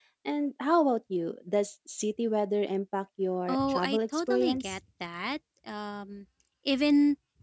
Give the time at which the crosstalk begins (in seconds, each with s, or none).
3.5 s